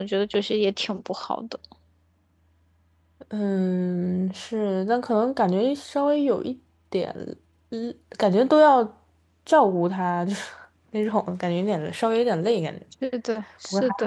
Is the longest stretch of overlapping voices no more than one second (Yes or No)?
Yes